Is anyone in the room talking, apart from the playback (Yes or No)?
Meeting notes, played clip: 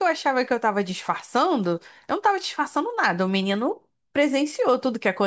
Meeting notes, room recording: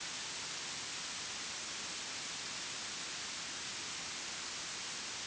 No